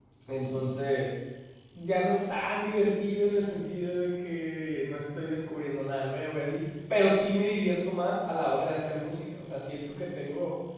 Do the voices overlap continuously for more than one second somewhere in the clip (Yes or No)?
No